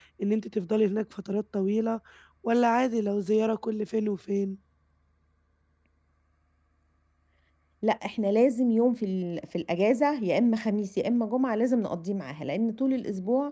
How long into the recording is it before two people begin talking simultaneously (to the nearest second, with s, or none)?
none